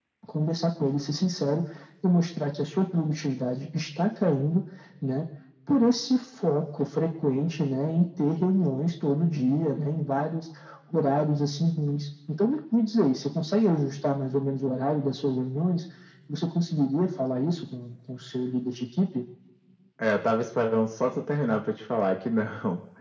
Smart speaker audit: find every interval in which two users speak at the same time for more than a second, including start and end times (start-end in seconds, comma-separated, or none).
none